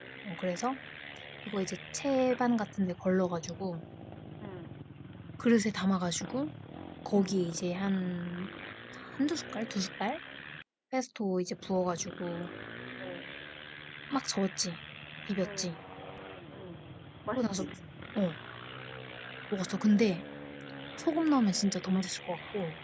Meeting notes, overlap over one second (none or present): none